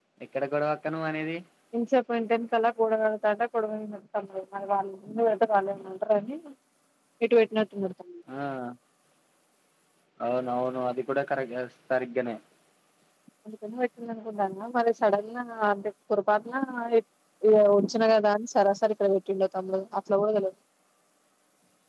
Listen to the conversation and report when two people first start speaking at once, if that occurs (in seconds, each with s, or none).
none